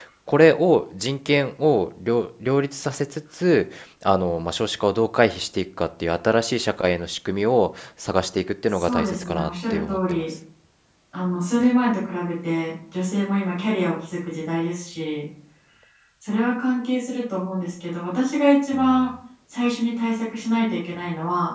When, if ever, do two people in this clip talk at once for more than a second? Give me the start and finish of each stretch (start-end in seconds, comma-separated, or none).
8.7-10.2